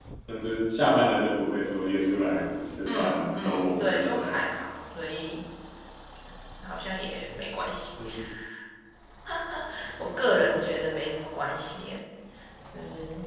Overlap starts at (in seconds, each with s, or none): 2.9 s